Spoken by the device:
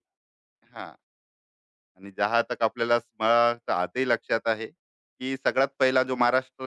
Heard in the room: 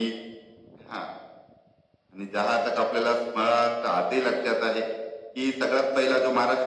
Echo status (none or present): present